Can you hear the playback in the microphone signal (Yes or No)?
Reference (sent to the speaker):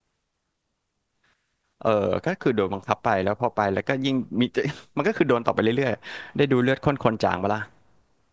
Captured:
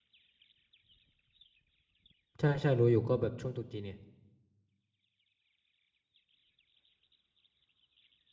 No